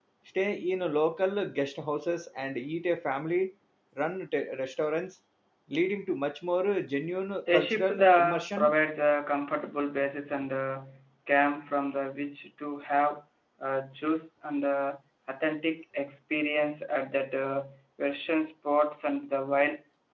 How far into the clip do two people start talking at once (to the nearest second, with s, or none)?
7 s